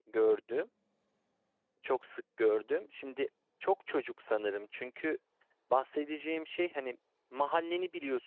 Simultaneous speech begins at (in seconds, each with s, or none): none